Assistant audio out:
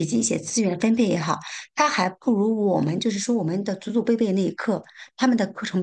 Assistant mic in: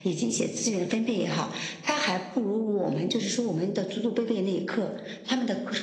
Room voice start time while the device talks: none

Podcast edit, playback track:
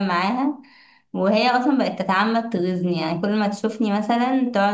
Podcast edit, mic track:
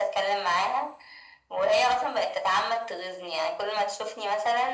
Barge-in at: none

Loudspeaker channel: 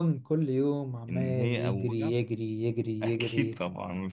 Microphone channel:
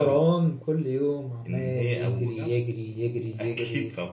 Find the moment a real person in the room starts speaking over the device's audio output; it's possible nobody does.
none

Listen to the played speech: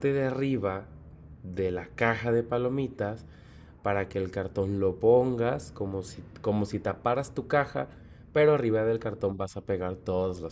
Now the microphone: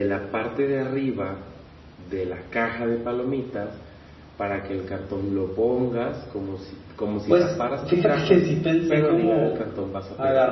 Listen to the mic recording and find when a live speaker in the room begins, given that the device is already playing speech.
7 s

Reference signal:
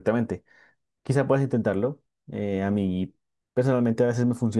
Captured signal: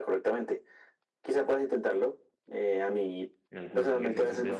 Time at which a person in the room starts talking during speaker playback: 3 s

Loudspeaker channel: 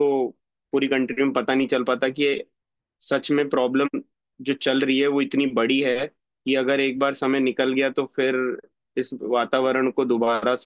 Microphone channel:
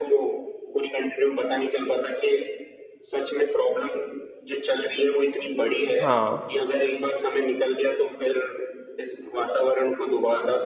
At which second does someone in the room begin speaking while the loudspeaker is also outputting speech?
6 s

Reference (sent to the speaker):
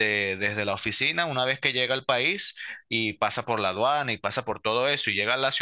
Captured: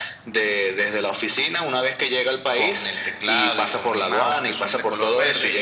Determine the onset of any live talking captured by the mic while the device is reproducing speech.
3 s

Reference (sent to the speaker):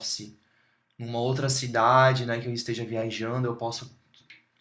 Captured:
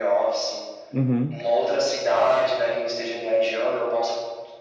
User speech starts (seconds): 1 s

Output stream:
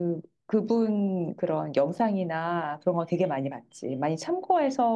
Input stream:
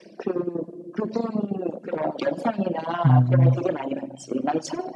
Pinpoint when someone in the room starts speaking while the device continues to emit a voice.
3 s

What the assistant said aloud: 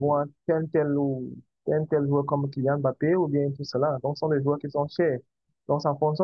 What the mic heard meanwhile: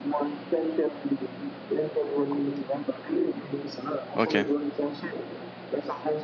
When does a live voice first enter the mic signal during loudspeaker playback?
4 s

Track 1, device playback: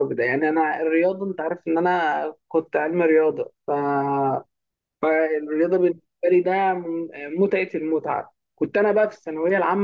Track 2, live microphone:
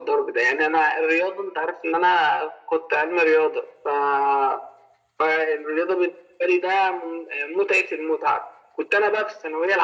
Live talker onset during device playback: none

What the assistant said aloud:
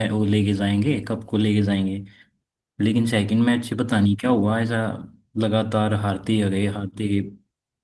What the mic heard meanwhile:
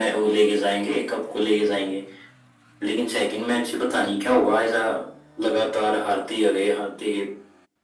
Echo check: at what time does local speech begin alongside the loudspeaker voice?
none

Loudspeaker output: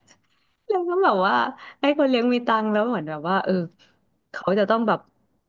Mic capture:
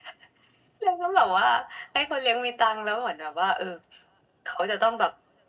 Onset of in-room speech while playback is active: none

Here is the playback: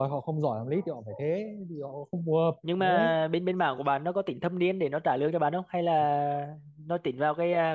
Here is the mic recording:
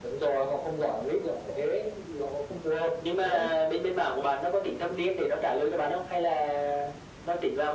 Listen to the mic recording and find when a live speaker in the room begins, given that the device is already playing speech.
none

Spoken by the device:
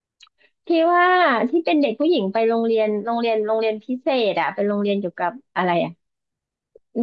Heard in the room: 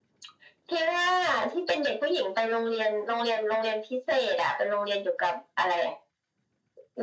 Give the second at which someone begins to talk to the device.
none

